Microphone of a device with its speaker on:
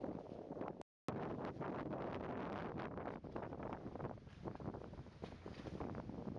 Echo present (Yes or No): No